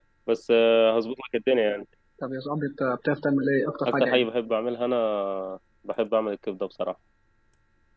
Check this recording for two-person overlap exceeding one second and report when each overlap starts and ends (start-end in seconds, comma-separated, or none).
none